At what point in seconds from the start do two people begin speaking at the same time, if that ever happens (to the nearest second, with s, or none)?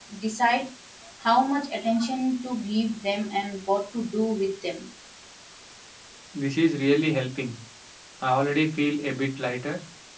none